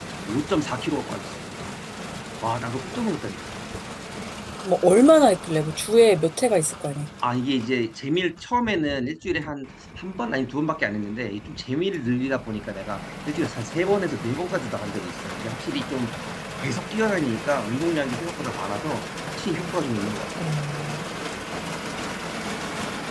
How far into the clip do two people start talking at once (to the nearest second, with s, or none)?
none